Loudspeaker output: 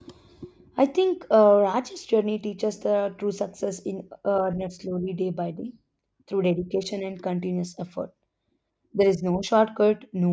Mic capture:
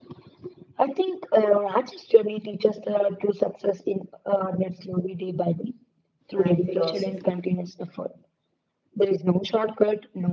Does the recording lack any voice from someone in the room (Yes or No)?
No